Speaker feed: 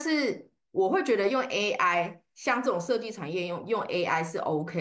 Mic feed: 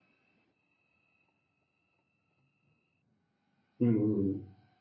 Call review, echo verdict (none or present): none